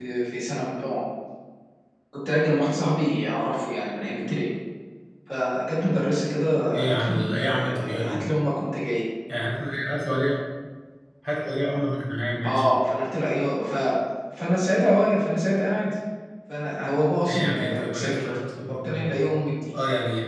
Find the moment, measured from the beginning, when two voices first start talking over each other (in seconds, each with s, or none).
6.7 s